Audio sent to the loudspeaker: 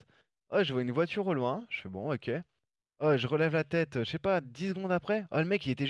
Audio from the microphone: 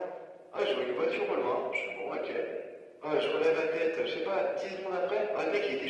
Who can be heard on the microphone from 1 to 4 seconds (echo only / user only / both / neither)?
echo only